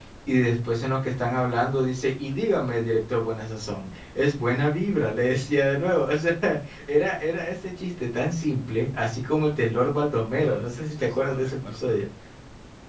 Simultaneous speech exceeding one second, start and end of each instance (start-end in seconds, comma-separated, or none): 10.3-12.0